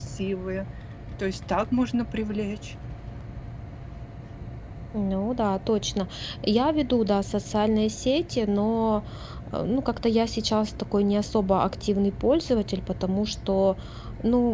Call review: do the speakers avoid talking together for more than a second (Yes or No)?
Yes